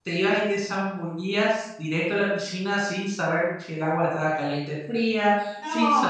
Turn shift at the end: Yes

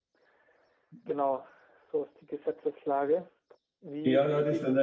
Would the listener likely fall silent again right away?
No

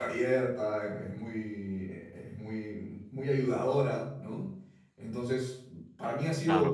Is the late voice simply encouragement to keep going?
Yes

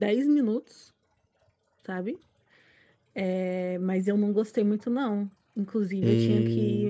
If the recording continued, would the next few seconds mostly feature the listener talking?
No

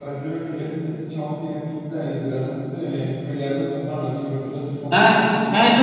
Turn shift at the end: Yes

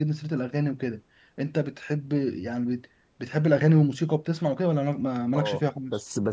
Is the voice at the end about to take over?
Yes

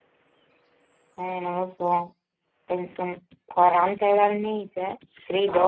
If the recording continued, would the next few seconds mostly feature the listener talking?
Yes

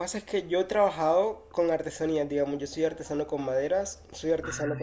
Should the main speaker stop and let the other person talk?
No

